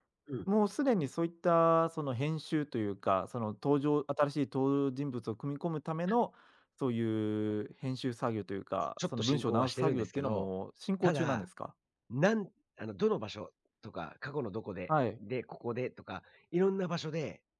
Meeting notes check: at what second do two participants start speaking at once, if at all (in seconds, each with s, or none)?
9.2 s